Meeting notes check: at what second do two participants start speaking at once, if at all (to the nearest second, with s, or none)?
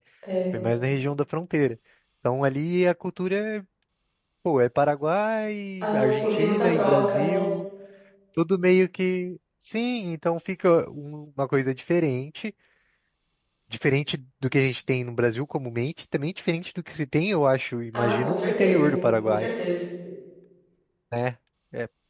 6 s